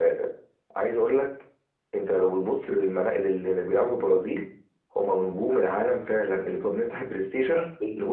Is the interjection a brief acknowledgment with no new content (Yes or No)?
Yes